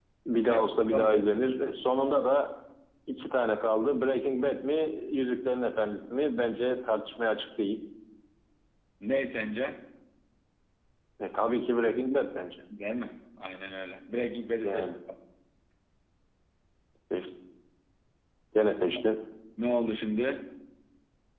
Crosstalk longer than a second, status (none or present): none